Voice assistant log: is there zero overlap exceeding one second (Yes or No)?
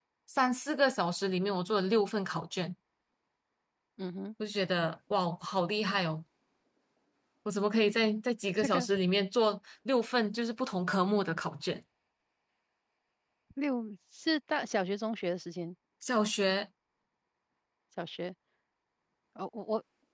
Yes